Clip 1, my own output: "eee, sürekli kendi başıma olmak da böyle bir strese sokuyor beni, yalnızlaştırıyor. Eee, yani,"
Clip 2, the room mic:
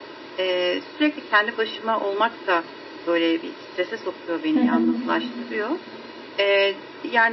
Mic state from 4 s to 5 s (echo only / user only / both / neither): both